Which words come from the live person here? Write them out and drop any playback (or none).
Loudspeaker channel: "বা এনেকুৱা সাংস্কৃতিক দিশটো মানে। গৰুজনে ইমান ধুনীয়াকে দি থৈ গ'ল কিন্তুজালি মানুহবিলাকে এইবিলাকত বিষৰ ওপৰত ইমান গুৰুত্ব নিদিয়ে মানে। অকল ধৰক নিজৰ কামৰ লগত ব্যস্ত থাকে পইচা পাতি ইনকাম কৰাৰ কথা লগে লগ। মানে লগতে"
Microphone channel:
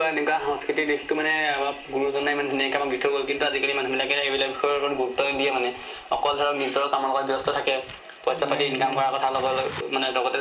অ', নাই নাই নাই